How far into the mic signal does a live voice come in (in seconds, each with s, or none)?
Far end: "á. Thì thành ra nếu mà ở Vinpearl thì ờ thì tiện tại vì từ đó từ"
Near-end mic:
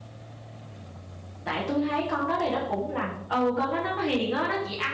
1.4 s